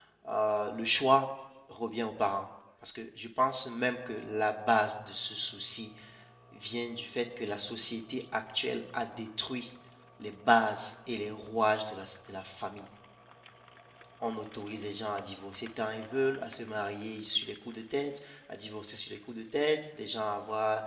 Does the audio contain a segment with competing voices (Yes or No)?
No